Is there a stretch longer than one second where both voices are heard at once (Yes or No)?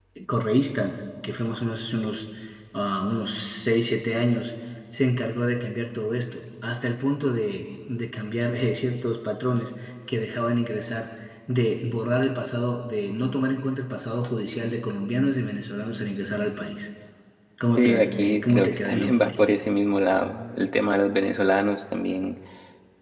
Yes